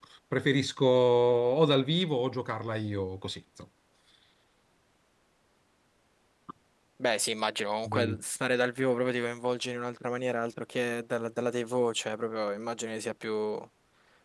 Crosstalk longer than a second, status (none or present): none